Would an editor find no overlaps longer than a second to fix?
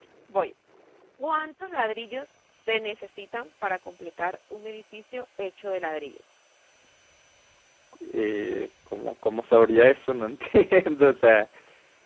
Yes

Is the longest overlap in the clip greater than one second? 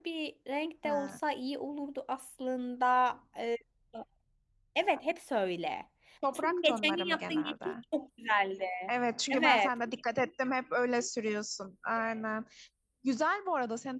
Yes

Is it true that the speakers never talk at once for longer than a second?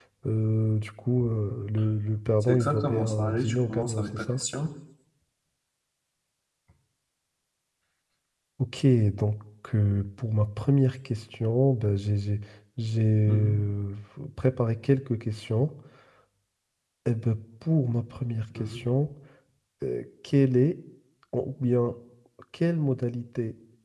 No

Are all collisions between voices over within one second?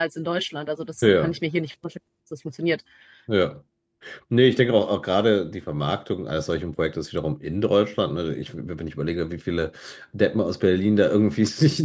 Yes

